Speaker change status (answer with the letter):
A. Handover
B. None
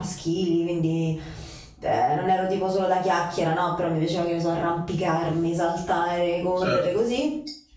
B